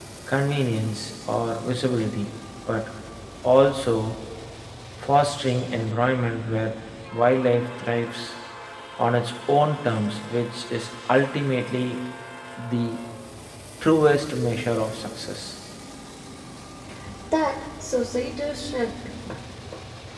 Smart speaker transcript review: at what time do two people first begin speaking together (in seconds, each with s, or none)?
none